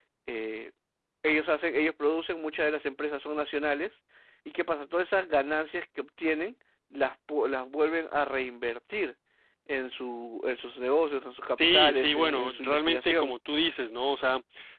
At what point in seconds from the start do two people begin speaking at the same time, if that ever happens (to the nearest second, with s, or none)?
12 s